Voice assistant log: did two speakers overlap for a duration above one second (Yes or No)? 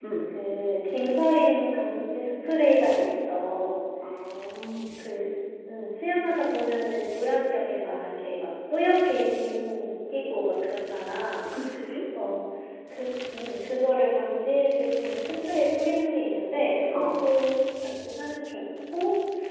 No